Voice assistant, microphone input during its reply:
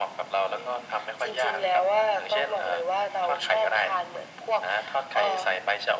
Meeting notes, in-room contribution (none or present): none